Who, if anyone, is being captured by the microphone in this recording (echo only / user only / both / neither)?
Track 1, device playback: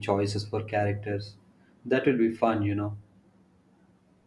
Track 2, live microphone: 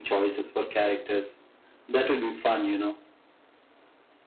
echo only